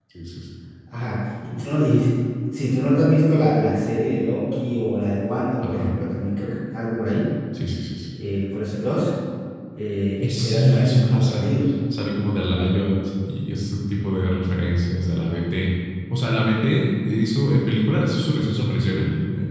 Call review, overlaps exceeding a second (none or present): present